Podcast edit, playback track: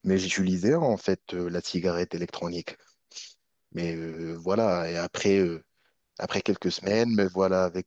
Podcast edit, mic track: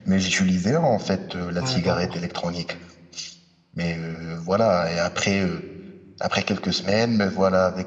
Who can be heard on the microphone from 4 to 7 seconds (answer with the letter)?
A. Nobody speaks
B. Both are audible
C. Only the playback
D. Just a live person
C